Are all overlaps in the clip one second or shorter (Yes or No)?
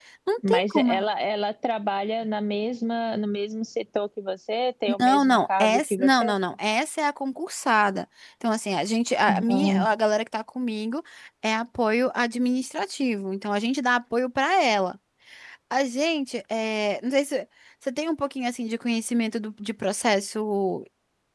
No